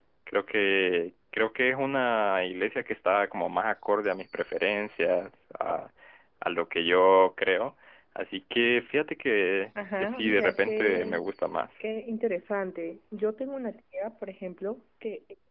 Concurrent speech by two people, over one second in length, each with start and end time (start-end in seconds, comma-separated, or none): 10.0-11.2